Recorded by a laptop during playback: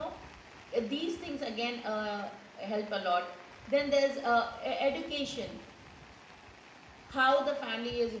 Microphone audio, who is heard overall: user only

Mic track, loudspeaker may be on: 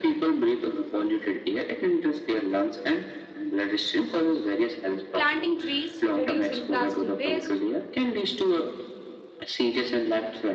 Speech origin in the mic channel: both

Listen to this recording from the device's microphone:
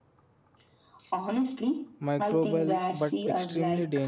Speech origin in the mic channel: both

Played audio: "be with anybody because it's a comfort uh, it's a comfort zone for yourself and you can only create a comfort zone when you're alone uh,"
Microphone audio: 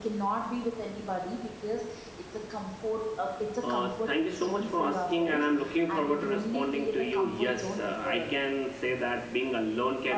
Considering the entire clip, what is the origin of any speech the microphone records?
both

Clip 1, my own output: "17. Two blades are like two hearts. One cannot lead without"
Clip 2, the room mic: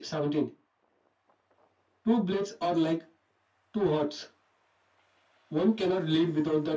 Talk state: echo only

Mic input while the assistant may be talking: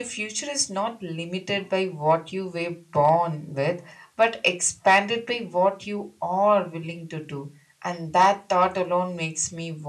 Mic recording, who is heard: echo only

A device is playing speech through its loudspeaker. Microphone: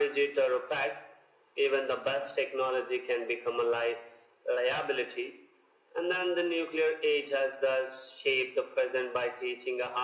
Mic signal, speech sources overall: echo only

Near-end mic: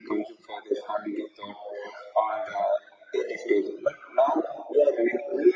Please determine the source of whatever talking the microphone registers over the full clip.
echo only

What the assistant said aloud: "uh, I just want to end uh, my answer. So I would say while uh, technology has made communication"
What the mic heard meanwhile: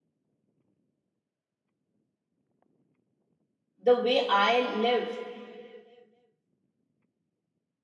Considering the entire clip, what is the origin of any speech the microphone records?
user only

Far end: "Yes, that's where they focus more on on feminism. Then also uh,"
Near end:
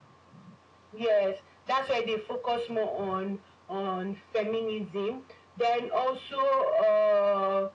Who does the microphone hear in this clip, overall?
echo only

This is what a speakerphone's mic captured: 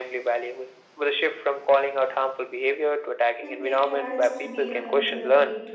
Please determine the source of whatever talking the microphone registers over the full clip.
both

